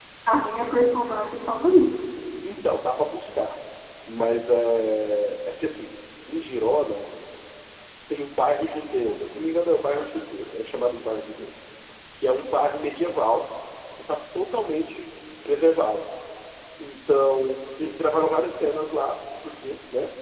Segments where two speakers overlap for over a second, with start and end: none

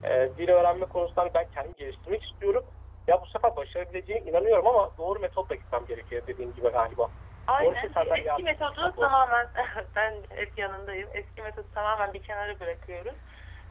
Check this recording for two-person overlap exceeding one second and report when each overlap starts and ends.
7.6-9.2

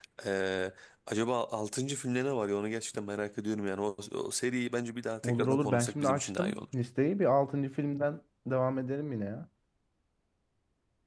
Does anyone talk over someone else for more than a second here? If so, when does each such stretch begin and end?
5.2-6.6

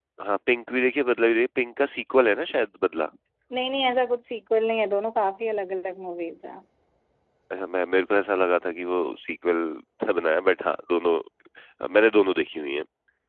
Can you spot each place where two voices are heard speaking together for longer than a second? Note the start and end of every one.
none

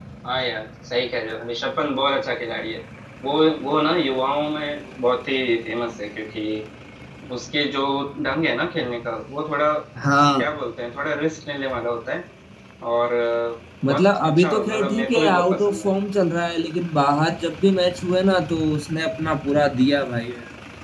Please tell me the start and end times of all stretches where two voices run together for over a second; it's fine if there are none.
13.8-15.9

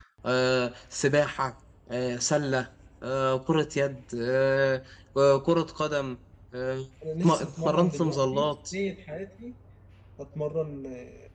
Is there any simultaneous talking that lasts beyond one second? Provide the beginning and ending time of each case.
7.2-8.5

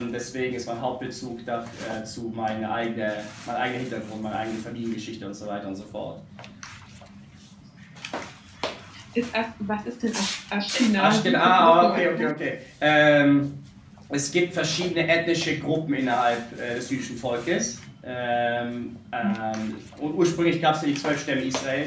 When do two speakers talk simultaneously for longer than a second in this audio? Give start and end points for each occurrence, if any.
11.0-12.3

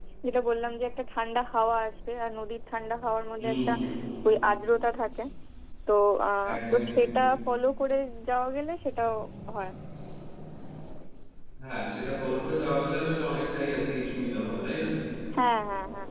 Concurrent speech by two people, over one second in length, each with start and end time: none

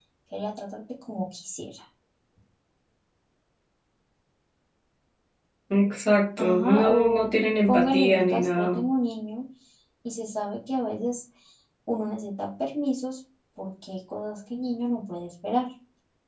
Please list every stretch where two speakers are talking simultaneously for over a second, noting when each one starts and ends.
6.4-8.8

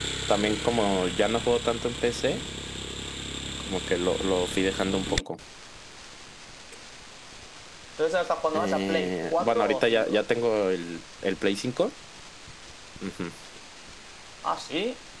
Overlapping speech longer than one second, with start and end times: 8.5-10.2

